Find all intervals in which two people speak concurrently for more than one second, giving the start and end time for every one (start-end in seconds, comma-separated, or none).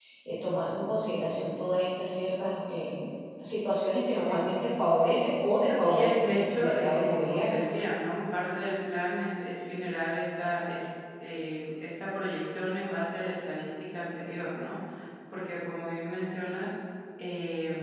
5.7-7.8